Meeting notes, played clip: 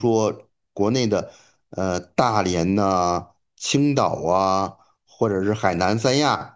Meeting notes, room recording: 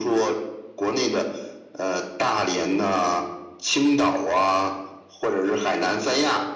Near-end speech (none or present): none